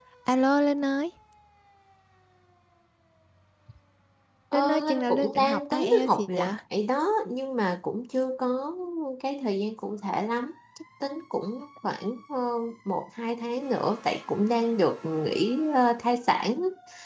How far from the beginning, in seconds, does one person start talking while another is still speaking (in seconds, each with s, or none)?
4.5 s